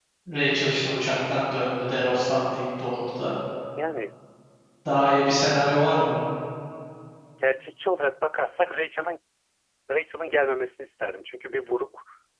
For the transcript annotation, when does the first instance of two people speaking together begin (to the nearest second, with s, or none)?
none